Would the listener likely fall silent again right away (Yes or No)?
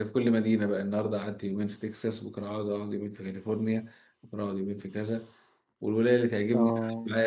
Yes